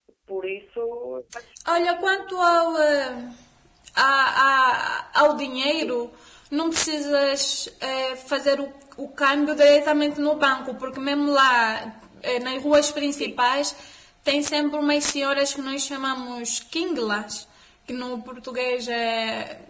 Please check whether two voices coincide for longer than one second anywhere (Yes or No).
No